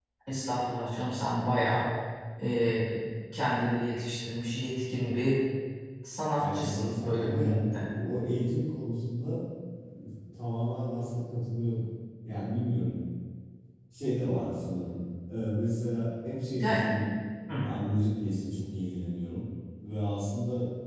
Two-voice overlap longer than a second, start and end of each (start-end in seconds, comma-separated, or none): 6.3-7.9